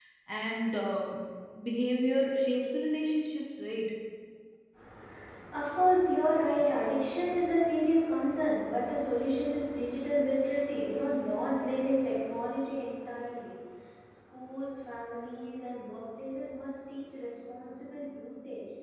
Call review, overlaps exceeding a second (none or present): none